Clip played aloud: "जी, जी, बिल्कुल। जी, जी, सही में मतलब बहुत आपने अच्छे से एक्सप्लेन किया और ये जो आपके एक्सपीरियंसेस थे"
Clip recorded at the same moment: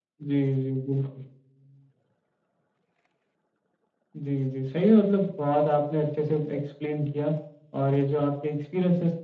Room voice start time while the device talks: none

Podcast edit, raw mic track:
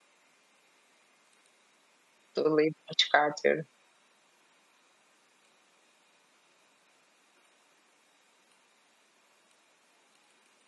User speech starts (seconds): 2.4 s

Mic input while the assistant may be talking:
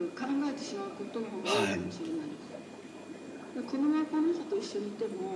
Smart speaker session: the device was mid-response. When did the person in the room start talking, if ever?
1.4 s

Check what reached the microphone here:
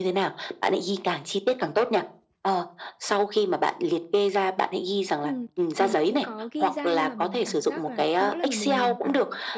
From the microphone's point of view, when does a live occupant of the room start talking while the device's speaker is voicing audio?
5.2 s

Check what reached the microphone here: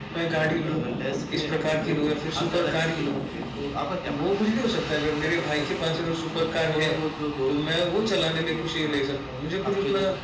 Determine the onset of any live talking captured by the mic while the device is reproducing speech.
none

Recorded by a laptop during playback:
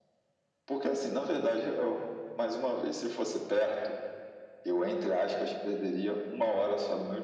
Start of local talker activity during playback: none

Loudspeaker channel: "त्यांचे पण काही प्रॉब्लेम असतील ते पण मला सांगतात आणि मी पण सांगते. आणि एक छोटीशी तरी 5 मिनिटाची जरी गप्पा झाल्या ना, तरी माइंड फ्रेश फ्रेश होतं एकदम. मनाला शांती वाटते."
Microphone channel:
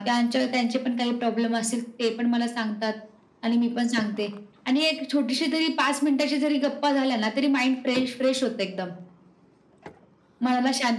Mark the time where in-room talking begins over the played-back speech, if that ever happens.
none

